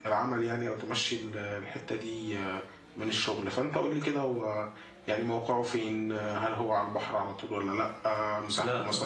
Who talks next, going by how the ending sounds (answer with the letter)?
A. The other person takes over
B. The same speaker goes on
B